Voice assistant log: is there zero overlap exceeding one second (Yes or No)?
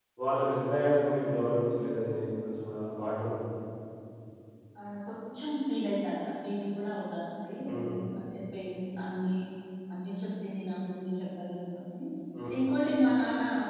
Yes